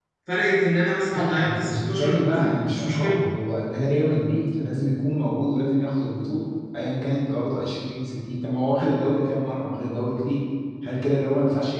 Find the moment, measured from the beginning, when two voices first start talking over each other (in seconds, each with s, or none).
1.1 s